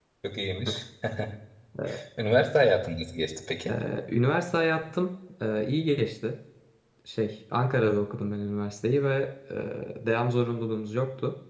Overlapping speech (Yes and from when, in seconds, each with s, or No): No